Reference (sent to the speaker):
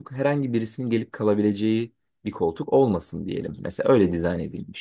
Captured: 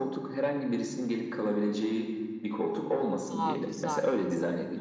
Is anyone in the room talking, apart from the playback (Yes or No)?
Yes